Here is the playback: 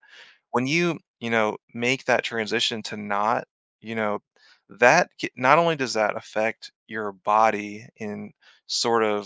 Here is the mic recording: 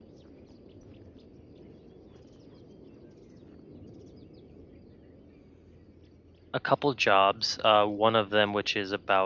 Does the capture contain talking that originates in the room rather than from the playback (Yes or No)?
Yes